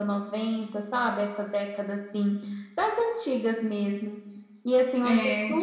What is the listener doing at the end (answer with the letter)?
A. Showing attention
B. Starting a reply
A